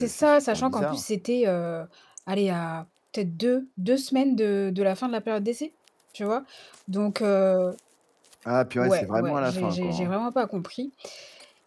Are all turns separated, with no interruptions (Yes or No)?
No